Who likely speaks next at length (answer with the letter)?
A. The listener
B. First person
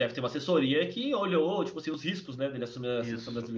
A